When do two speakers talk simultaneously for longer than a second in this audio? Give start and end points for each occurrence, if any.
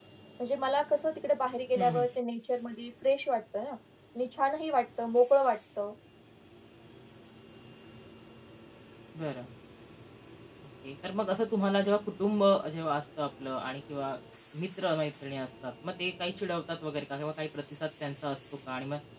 none

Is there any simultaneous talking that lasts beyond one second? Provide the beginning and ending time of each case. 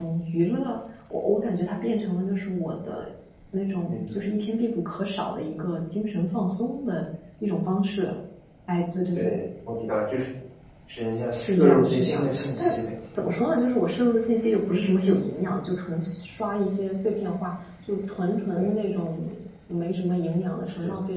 11.4-12.7

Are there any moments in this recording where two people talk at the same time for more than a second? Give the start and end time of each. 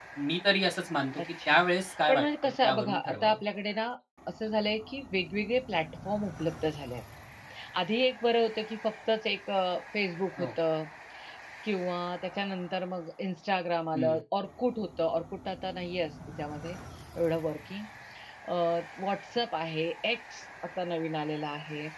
2.1-3.4

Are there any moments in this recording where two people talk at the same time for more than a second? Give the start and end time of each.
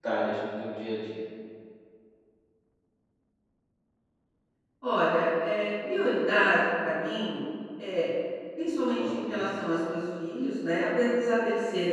none

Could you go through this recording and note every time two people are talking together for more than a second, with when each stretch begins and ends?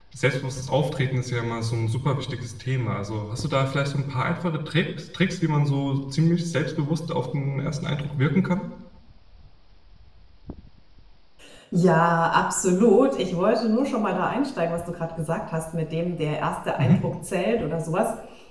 none

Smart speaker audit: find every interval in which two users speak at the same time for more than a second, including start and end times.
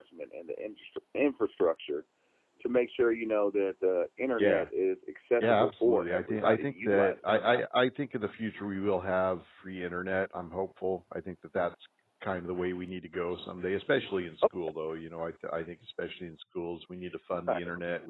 5.4-7.6

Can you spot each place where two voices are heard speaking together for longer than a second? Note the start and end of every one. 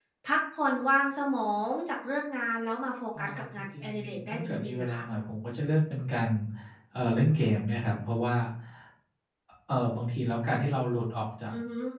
3.2-5.0

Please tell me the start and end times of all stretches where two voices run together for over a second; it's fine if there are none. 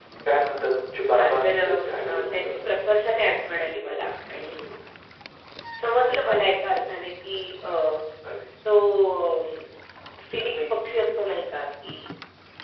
1.2-2.7

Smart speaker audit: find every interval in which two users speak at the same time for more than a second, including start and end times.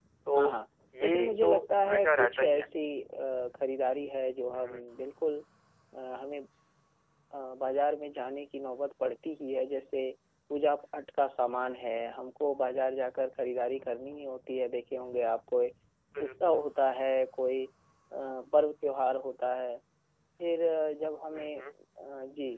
1.0-2.7

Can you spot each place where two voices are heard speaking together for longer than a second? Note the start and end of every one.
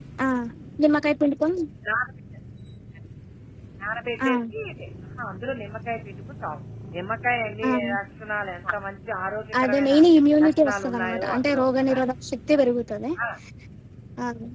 10.4-12.0

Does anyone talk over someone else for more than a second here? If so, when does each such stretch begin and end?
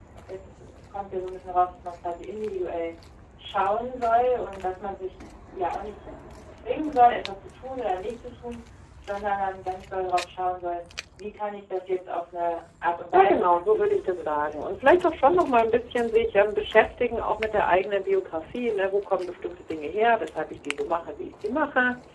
13.1-14.6

